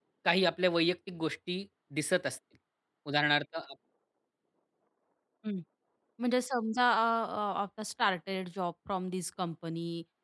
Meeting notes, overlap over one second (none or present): none